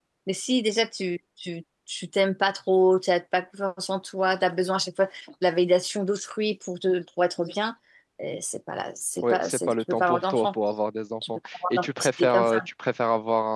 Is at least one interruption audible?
Yes, from 9.2 s

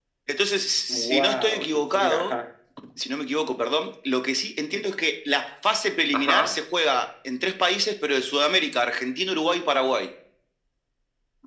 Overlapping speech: Yes, from 0.9 s

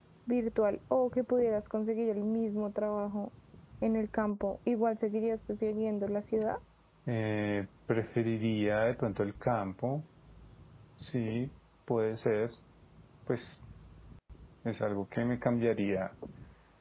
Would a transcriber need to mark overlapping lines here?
No

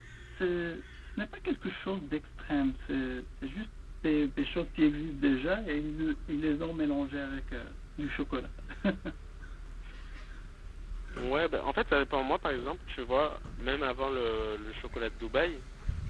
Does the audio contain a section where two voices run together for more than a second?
No

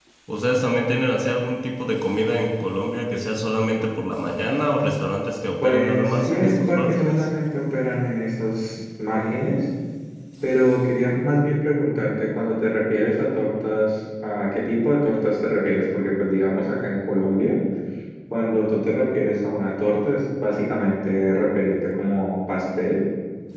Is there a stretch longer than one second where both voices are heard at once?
Yes, from 5.6 s

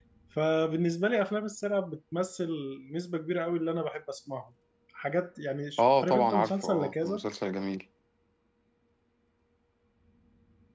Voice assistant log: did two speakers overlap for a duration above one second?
Yes, from 5.8 s

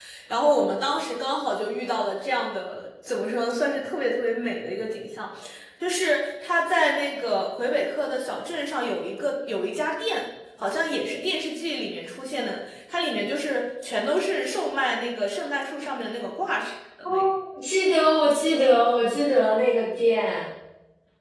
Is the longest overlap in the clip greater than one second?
No

